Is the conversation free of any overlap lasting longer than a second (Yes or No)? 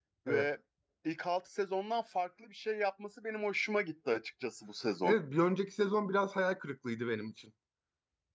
Yes